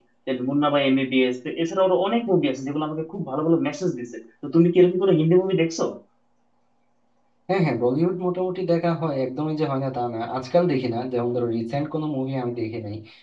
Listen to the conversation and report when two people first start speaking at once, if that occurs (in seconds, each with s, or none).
none